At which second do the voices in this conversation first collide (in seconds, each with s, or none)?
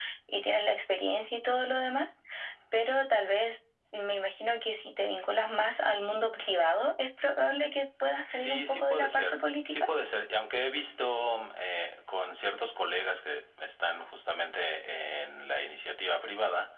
8.3 s